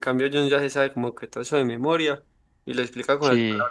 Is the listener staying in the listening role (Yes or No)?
Yes